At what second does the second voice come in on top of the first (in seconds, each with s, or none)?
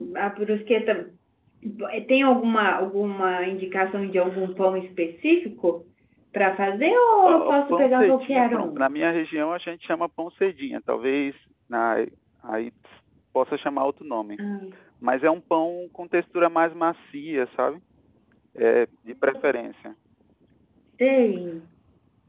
7.2 s